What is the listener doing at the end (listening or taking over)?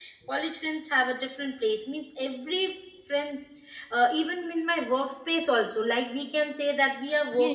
taking over